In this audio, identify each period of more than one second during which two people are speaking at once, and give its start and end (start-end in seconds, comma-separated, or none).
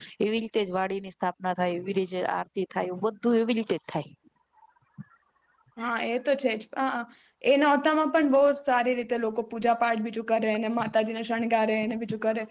none